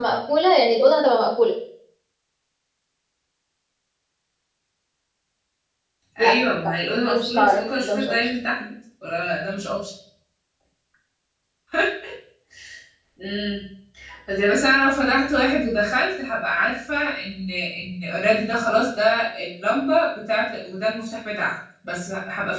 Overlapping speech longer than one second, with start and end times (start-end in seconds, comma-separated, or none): 6.2-8.2